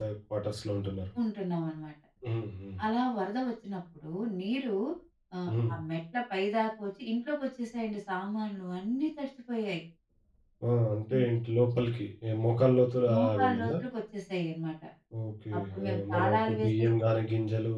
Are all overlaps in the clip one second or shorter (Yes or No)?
No